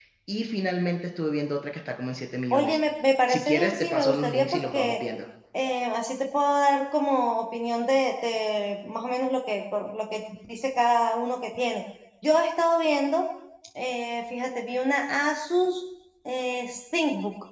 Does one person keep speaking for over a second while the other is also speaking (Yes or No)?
Yes